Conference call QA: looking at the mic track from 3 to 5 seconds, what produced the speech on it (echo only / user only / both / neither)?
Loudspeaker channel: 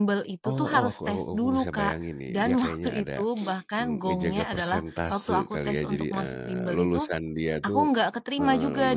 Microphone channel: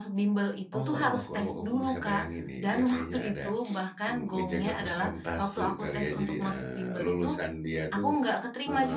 echo only